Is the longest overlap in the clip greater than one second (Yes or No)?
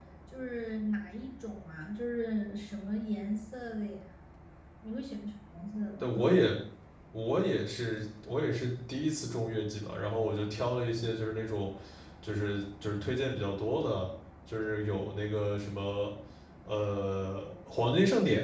No